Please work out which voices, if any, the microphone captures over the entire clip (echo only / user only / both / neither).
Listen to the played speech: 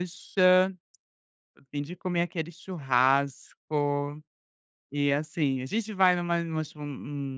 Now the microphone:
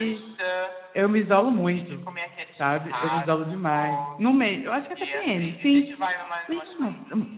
both